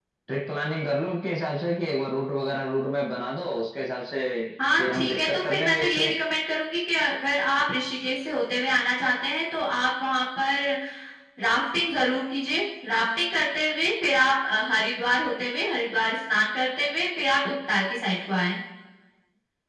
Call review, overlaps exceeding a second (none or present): present